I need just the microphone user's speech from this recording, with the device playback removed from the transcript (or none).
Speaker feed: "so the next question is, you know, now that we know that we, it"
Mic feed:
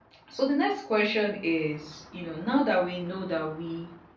none